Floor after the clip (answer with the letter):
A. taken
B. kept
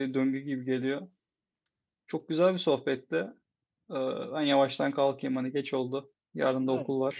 A